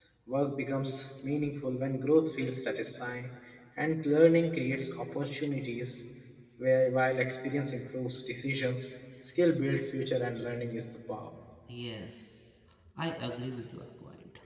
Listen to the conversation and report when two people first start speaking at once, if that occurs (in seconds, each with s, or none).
none